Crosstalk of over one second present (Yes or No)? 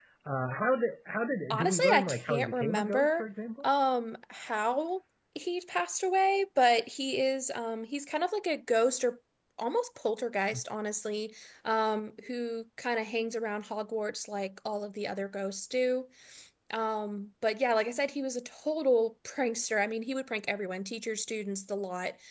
Yes